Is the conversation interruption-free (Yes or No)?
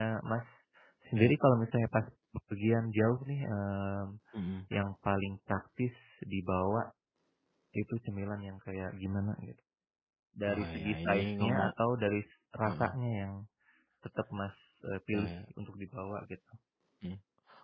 No